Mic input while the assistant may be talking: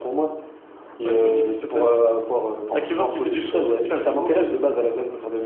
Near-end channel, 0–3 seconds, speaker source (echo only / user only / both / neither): echo only